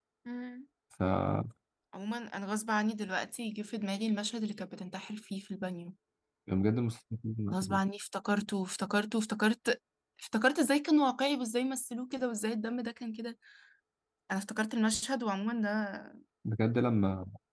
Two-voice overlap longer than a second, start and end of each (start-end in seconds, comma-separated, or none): none